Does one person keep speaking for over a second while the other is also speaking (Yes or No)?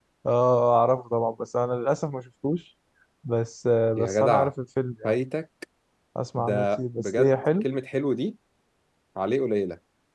Yes